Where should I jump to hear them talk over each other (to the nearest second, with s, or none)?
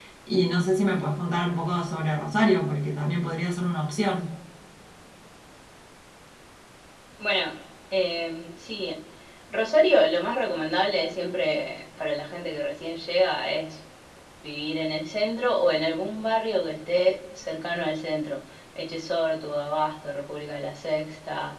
none